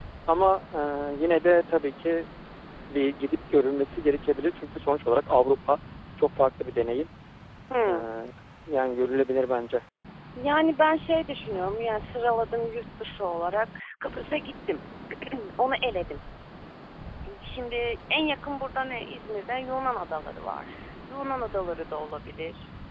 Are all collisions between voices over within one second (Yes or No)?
Yes